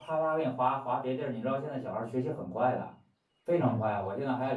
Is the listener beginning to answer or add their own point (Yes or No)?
No